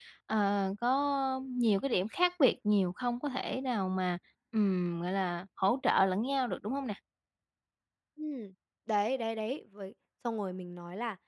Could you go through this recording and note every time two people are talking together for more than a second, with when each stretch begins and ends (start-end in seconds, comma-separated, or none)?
none